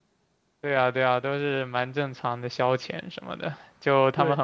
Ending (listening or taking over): listening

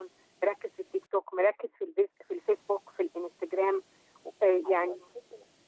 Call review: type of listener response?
taking over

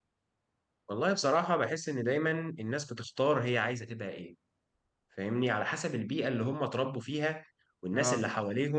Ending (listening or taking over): listening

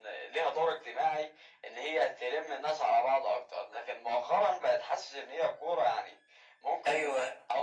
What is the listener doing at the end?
listening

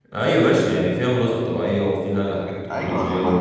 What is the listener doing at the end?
taking over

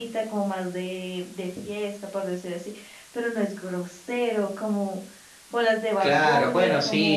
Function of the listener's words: taking over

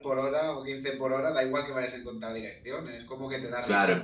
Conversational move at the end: listening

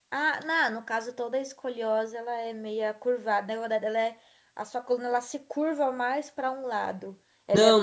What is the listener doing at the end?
taking over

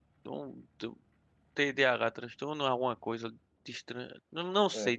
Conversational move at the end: listening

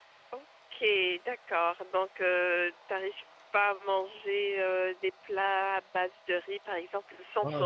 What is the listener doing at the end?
taking over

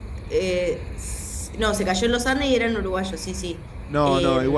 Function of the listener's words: taking over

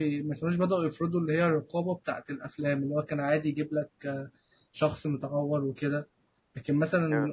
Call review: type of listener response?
listening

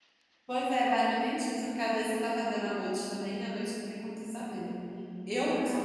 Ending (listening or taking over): listening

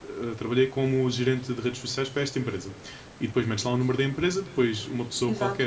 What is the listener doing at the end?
listening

